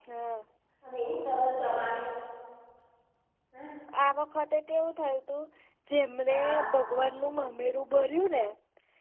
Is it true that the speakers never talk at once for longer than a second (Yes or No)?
Yes